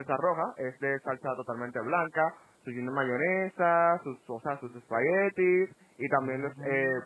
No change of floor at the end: Yes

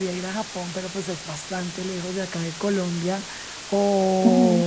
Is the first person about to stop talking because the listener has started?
No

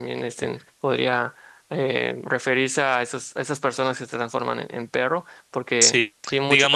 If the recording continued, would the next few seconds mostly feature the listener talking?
Yes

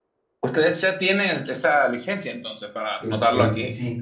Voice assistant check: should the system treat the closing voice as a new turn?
Yes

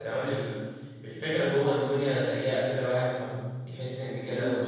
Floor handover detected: Yes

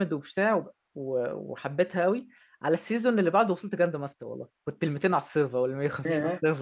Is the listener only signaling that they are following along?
Yes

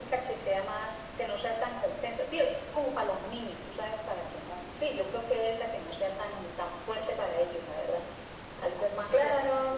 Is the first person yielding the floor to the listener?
Yes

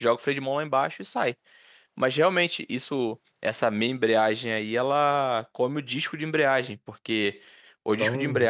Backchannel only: Yes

